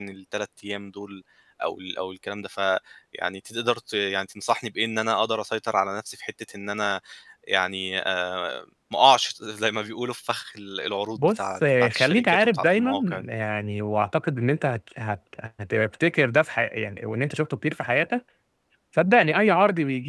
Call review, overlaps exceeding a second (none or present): present